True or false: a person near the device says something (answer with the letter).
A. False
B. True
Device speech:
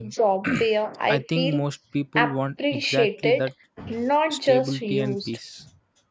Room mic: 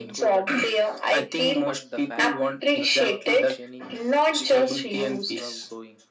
B